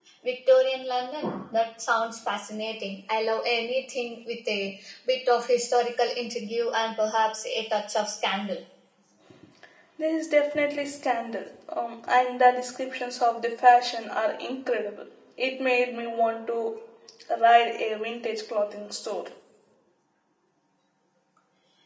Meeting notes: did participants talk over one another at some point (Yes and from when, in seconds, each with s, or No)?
No